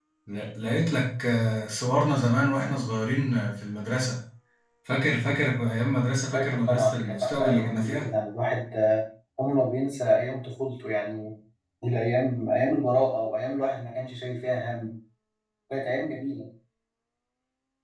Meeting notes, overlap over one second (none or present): present